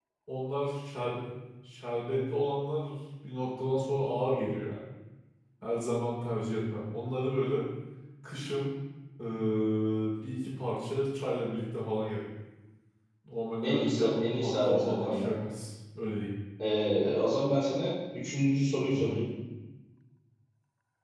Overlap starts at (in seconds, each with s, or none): 13.7 s